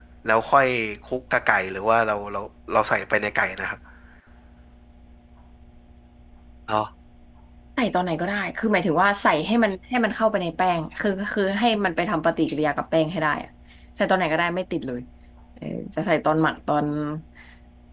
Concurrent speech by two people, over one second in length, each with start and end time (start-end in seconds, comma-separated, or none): none